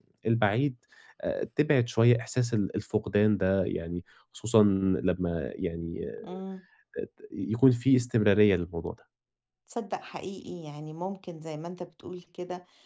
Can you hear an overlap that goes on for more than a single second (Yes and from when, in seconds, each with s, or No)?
No